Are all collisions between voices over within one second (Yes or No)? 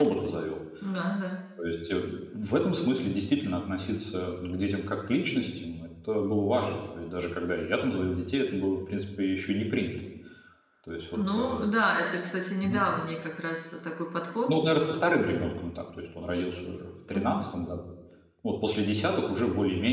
Yes